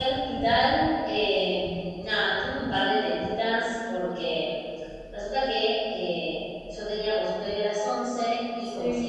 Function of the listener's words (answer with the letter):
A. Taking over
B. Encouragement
B